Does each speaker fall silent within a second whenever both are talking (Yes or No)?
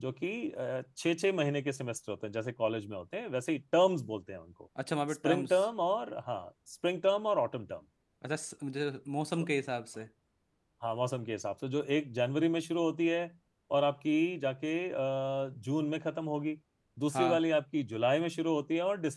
Yes